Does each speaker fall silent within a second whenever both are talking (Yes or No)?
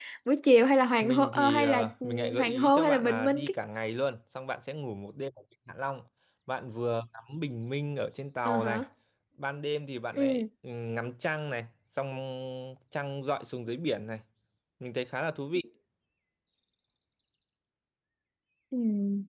No